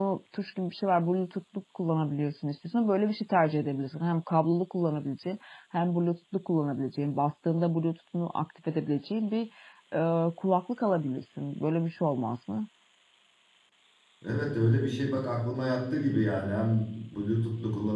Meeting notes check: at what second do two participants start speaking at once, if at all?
none

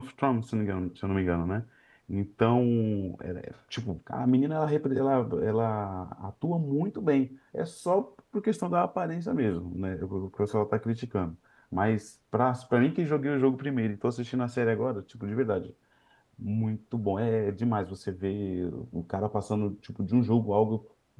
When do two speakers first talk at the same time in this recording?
none

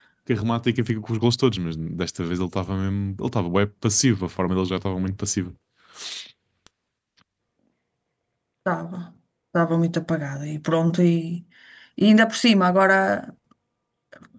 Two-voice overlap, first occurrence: none

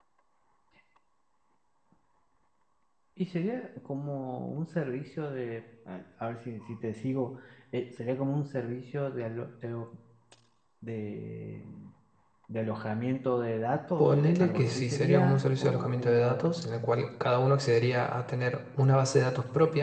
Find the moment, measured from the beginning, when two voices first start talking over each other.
14 s

